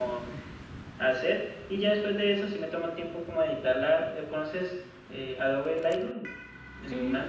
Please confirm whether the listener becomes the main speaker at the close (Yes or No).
Yes